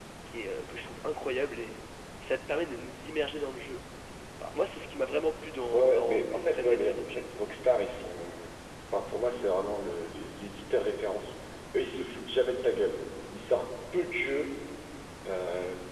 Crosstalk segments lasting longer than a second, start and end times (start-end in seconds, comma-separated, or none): 5.7-7.3